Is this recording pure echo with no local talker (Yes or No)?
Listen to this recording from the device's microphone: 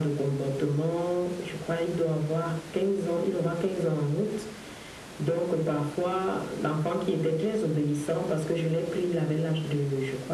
Yes